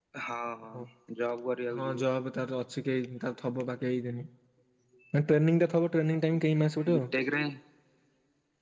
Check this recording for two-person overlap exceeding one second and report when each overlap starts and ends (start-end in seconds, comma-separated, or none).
none